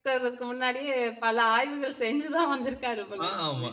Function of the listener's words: taking over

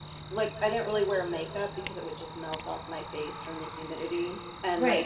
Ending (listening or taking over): taking over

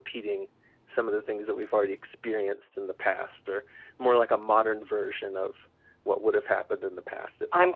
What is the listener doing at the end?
taking over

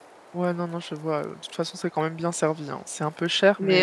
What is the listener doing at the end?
taking over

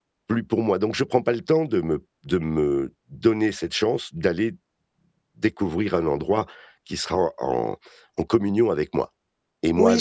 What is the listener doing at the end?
taking over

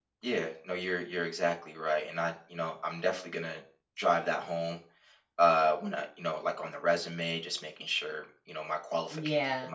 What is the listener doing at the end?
taking over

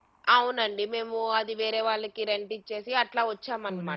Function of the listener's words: taking over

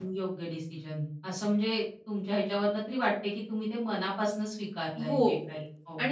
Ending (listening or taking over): taking over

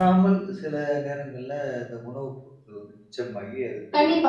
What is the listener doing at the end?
taking over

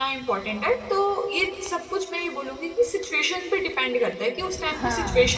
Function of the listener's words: listening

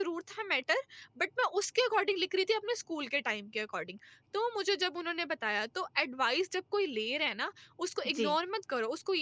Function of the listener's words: listening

